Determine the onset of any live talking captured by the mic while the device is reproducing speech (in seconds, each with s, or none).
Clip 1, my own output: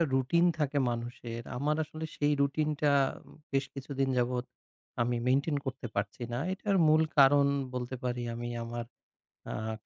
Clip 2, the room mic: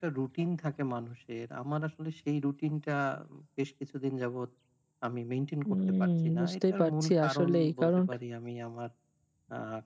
5.6 s